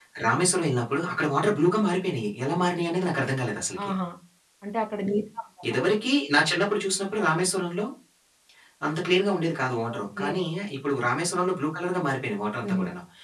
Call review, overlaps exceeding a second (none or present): none